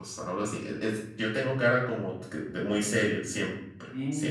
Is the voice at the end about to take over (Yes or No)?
Yes